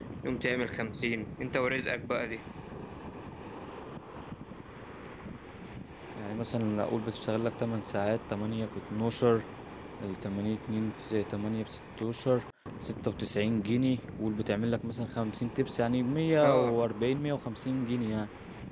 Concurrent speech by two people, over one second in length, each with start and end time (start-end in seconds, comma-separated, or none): none